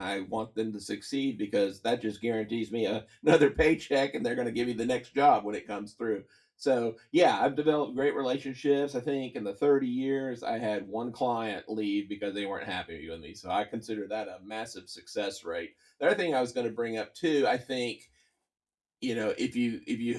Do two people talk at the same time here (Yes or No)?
No